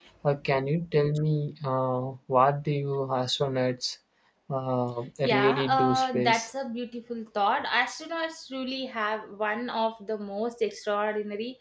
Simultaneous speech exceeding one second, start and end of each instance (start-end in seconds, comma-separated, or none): 5.2-6.5